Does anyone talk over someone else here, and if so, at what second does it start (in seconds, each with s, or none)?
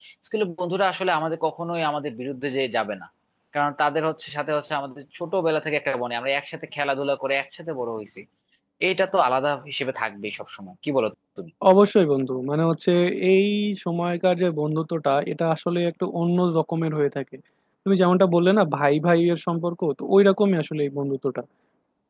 none